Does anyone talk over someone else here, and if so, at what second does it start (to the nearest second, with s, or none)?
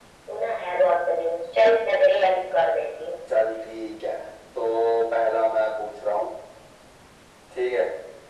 none